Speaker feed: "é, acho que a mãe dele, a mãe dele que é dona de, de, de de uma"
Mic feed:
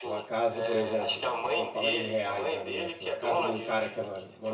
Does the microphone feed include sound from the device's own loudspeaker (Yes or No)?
Yes